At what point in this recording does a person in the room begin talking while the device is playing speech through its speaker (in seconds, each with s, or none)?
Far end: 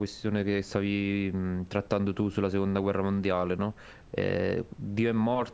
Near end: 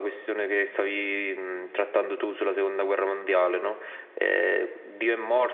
none